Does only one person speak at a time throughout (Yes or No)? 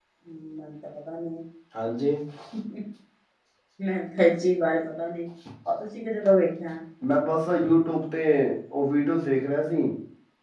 Yes